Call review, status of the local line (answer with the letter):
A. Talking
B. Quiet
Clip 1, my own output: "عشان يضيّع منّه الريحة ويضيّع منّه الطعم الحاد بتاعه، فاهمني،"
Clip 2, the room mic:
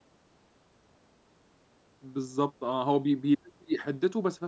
A